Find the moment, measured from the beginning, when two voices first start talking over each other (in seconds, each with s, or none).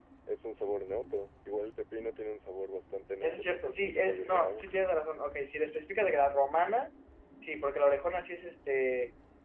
3.2 s